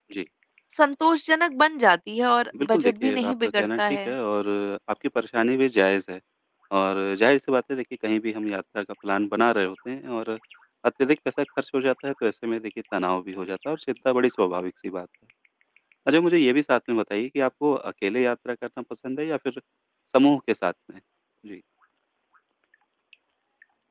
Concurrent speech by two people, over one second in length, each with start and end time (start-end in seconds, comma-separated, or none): 2.6-4.1